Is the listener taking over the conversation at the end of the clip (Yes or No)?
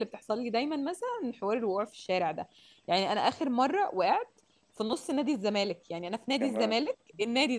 No